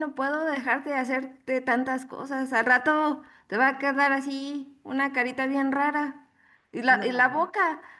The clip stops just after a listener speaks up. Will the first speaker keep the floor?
Yes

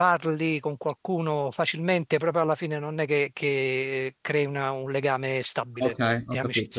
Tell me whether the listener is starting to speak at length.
Yes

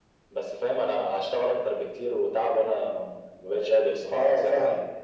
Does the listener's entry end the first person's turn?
Yes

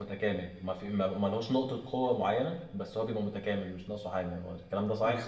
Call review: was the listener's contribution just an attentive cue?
No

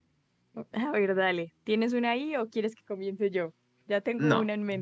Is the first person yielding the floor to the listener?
Yes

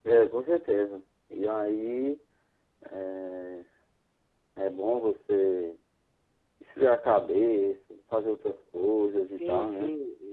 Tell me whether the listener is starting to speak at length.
Yes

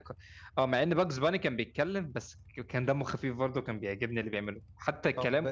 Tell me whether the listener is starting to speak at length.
Yes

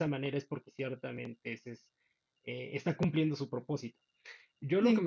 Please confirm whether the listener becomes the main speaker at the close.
No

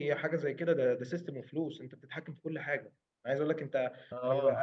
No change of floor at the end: Yes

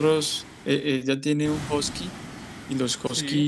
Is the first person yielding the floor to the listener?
No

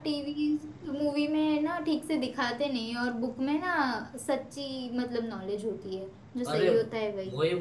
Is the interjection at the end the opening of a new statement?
Yes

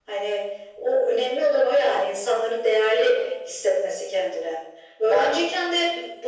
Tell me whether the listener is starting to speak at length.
No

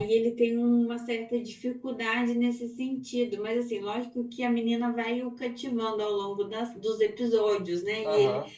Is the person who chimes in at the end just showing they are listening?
Yes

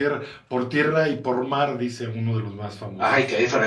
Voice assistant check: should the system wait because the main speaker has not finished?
No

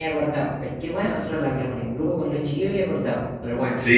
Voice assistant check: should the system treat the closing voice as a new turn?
Yes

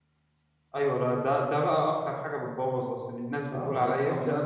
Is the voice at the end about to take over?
Yes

